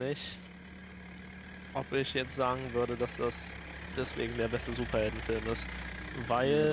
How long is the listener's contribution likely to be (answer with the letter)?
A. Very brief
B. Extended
B